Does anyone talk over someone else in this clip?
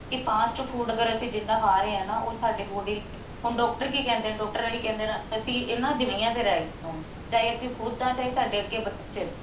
No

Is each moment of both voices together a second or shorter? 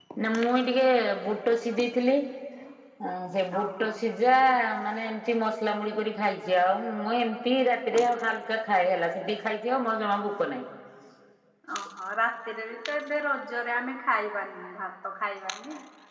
Yes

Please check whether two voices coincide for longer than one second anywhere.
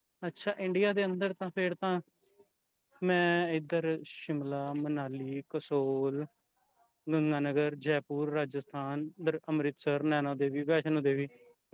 No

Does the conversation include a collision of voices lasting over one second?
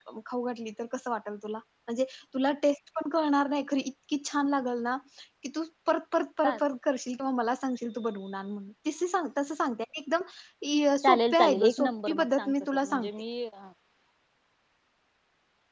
Yes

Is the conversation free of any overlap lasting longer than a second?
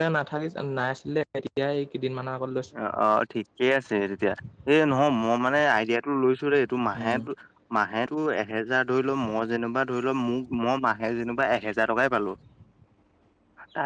Yes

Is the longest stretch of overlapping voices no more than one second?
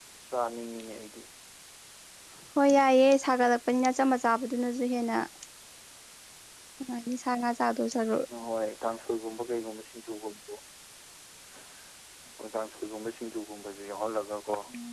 Yes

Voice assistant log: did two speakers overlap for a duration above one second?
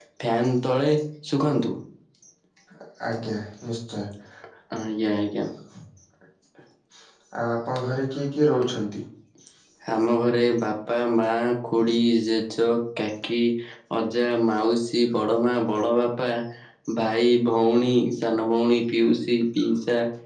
No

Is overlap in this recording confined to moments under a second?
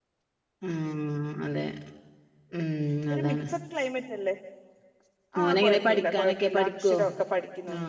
No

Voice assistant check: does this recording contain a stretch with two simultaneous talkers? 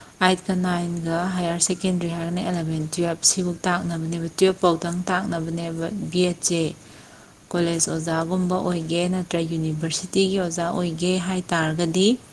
No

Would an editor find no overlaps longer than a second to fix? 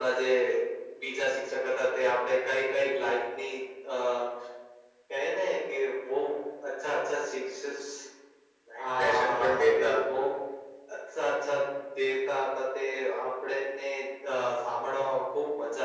No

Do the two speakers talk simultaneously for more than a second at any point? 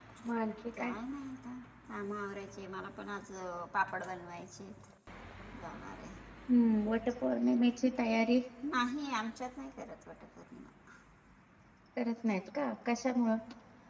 No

